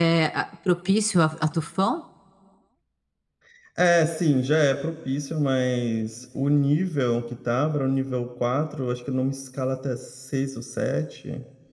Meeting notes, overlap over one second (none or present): none